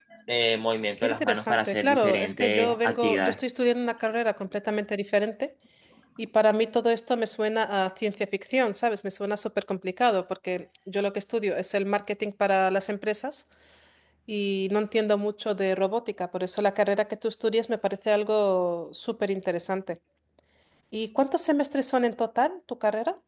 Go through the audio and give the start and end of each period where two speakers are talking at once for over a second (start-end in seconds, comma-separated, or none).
1.0-3.4